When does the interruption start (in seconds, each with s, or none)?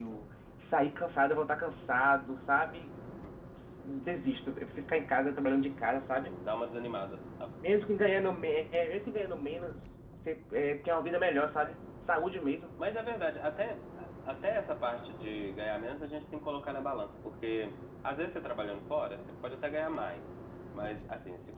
none